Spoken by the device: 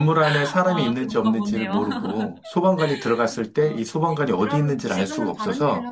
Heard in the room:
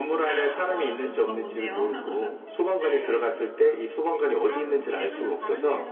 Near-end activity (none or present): none